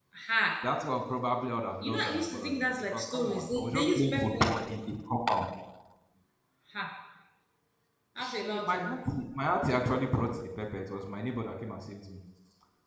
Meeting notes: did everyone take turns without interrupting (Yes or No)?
No